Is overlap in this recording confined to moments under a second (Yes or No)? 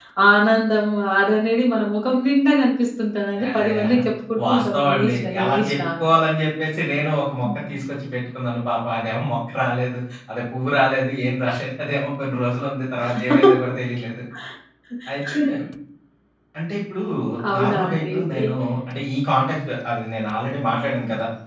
No